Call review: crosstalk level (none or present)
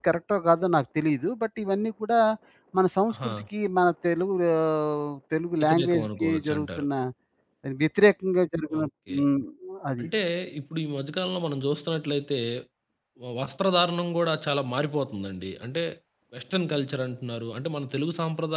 present